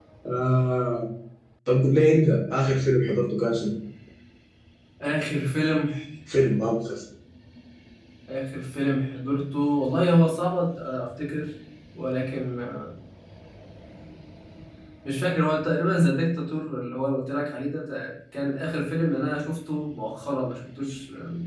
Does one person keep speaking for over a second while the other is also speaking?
No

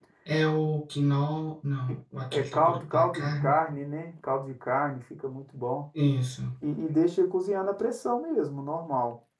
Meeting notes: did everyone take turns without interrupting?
No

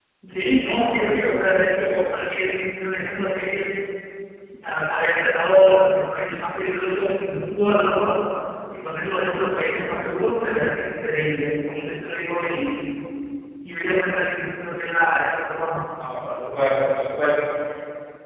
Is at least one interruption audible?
No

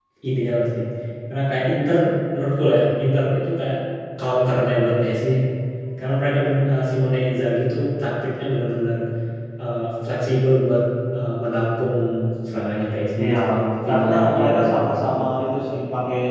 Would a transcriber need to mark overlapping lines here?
Yes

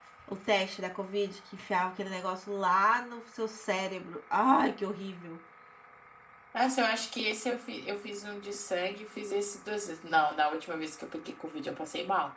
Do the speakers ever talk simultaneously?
No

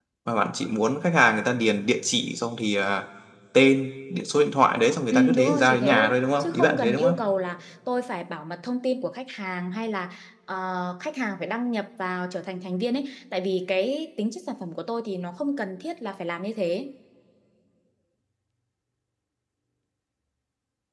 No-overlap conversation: No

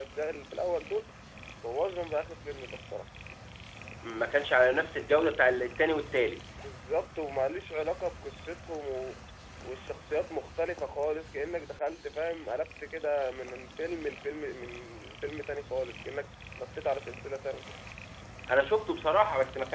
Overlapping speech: No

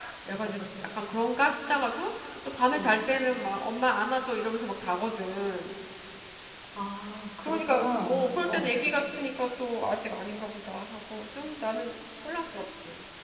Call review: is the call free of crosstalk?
No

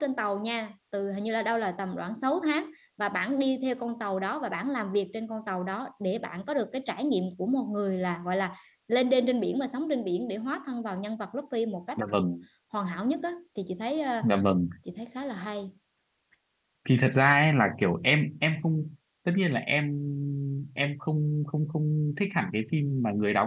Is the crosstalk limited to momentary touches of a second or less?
Yes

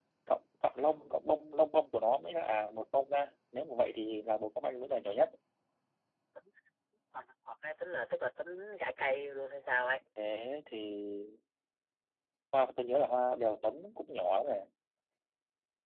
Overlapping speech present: No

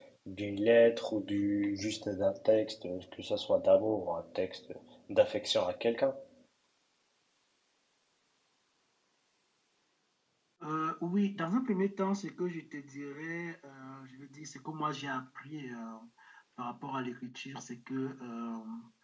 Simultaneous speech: No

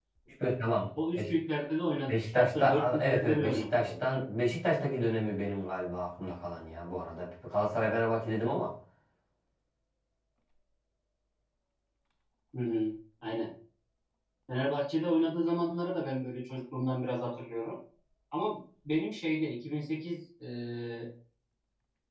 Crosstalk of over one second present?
Yes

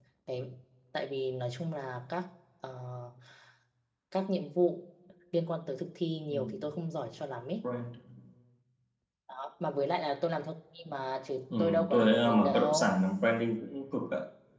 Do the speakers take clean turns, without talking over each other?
No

